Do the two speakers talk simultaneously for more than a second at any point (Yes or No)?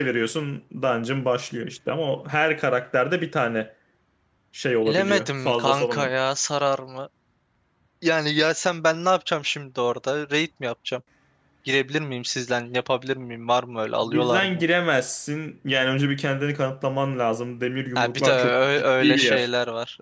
Yes